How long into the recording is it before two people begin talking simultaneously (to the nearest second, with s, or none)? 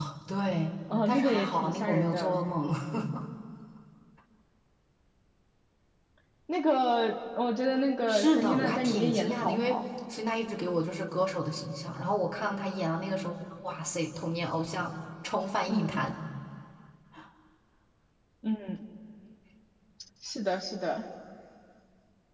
1 s